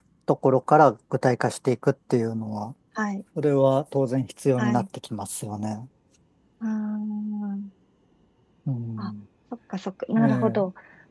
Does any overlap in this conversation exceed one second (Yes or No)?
No